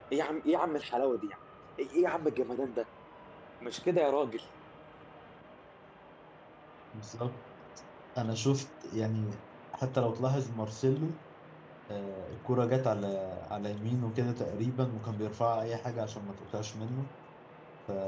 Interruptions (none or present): none